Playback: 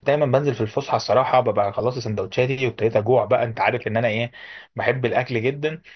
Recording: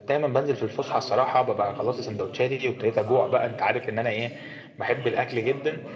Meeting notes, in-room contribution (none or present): present